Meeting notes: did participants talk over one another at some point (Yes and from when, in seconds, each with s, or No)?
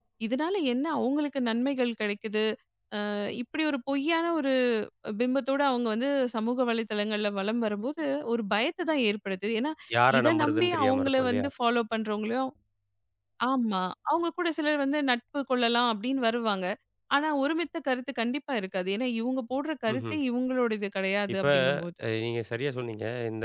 Yes, from 10.2 s